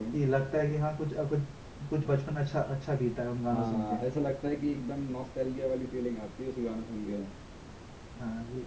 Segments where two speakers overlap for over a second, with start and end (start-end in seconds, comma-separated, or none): none